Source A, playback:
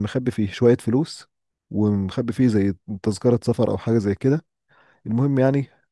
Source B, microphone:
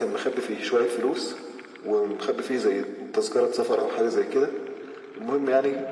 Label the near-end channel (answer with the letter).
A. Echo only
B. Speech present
A